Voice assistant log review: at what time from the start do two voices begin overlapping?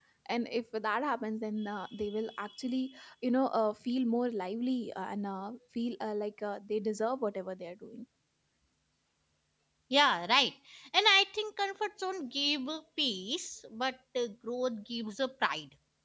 none

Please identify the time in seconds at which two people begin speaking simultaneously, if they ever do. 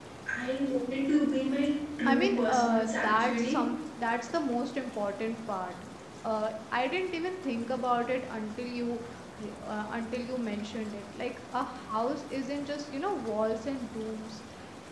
2.0 s

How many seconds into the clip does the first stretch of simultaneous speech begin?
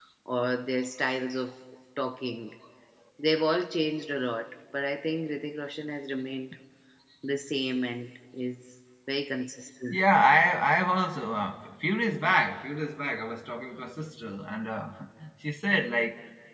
none

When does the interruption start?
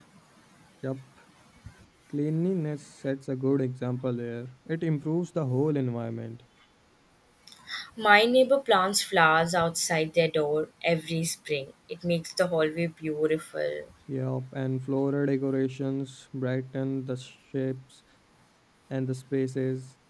none

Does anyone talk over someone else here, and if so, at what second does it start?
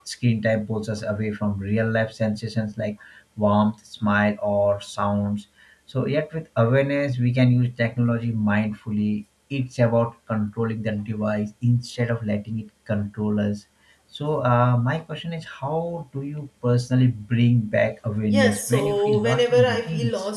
18.2 s

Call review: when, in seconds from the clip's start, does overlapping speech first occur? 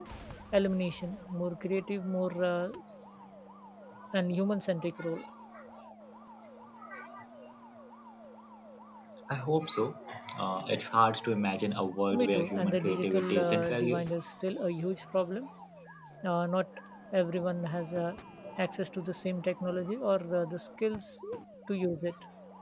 12.1 s

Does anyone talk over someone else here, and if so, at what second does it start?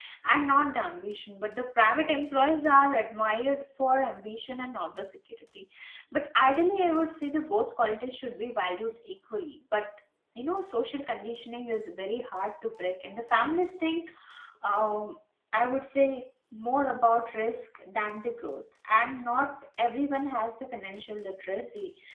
none

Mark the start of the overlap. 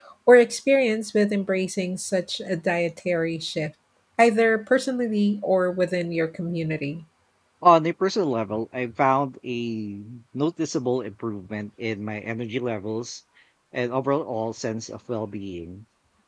none

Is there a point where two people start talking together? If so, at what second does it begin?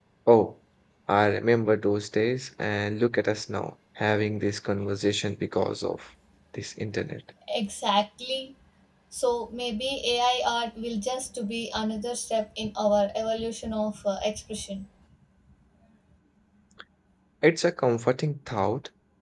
none

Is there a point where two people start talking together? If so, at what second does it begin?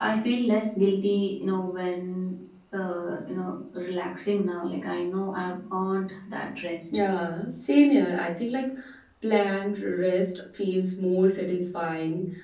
none

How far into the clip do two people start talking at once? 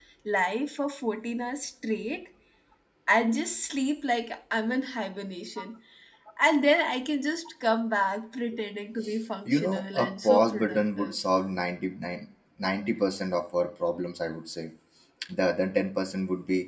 9.4 s

